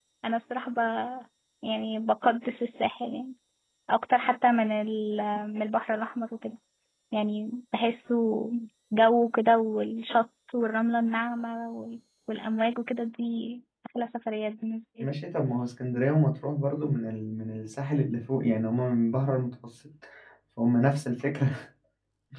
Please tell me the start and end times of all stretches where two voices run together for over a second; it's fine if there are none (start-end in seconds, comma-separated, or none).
none